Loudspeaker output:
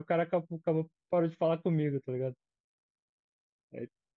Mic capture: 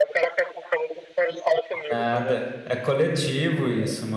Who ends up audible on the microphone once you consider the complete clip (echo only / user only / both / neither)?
both